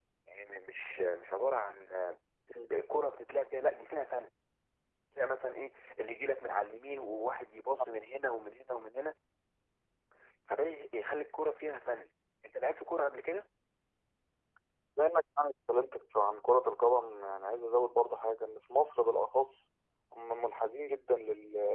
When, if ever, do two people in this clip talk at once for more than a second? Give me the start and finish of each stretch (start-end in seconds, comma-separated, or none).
none